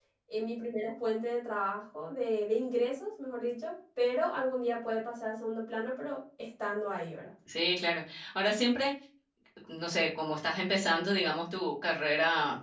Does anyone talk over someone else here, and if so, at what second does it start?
none

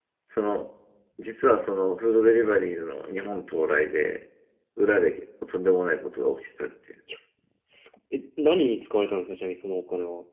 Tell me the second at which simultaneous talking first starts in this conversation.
none

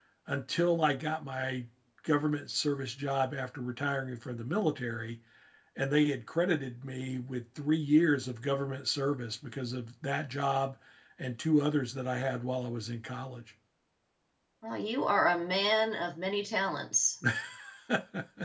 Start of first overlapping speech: none

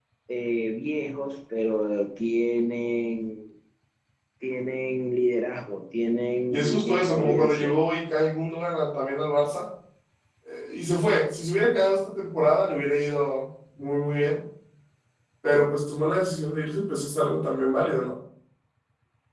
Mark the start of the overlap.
7 s

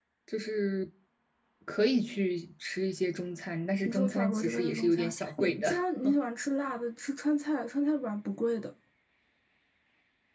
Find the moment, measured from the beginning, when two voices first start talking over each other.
4 s

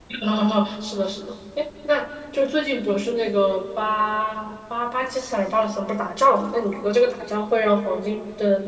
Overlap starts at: none

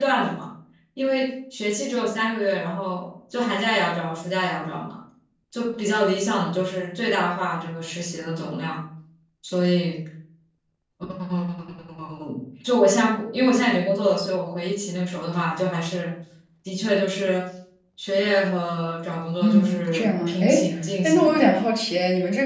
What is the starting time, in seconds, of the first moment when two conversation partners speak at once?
19 s

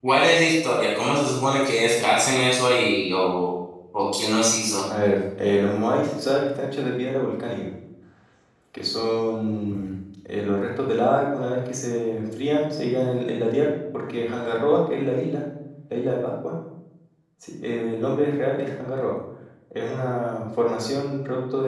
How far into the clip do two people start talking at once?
none

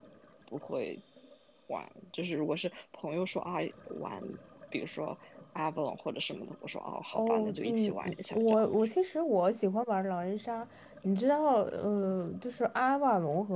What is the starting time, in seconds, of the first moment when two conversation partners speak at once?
7 s

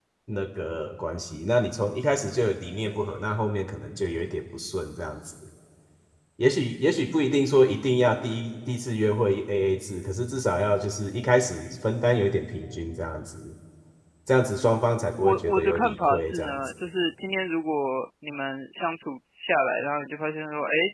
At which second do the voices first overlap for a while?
15 s

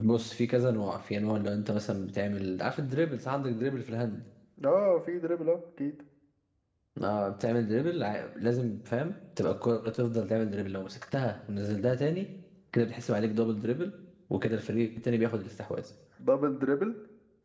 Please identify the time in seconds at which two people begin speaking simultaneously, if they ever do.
none

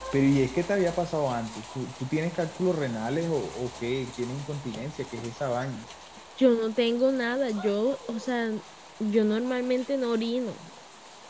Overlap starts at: none

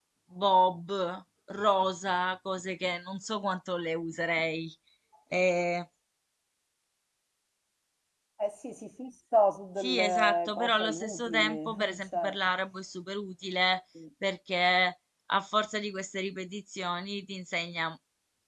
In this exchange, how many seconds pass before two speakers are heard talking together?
10 s

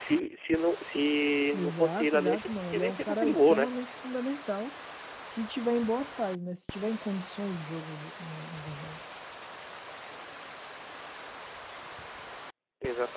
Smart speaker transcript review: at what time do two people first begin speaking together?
2 s

